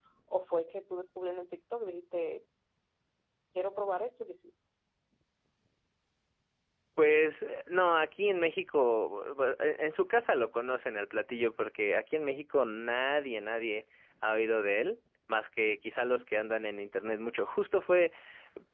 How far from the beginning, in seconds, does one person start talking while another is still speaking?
none

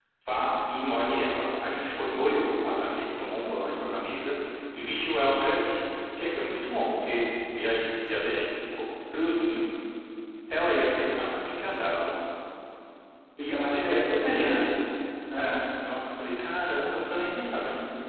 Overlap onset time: 13.4 s

